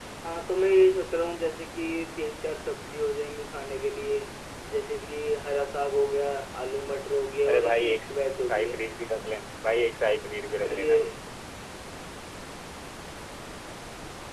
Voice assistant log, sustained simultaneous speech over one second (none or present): none